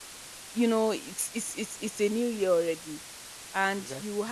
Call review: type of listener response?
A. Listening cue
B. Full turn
A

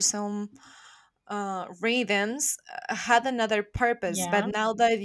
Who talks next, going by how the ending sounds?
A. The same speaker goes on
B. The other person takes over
A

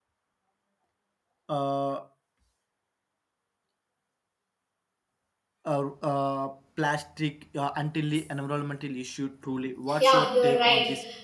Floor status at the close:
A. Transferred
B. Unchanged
A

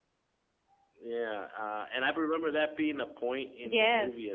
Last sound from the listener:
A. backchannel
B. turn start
B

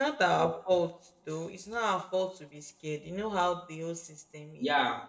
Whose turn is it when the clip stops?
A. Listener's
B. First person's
A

